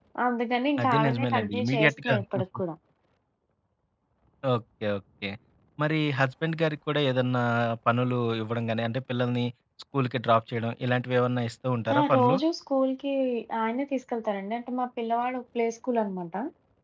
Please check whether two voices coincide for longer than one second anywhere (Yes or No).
Yes